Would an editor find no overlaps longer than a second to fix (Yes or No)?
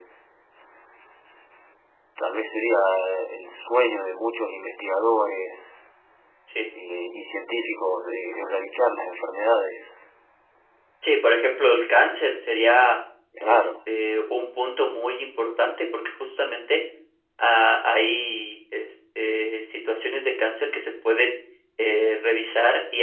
Yes